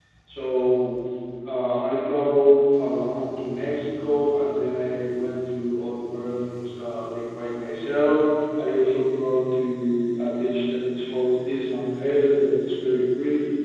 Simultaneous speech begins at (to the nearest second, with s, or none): none